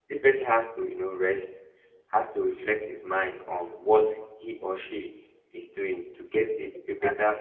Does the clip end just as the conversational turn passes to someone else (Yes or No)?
No